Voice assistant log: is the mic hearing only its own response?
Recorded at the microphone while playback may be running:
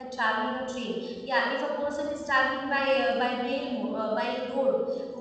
No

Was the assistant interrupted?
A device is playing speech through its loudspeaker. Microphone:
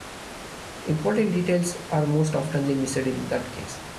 Yes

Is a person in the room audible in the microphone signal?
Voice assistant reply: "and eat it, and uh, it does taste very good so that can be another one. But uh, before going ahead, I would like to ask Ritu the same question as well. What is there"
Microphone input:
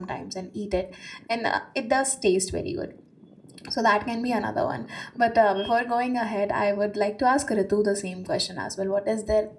No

